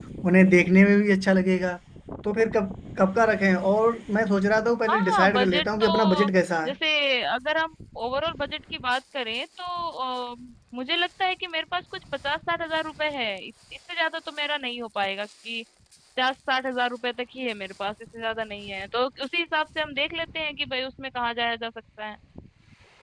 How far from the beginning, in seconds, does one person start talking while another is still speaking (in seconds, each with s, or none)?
4.9 s